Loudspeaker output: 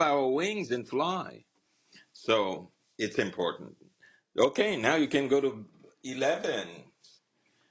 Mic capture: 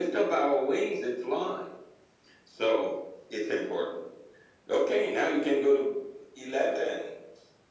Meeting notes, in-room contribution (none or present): none